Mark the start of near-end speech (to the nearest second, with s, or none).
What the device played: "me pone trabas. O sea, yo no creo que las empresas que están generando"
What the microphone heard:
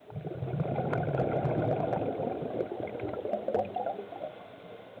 none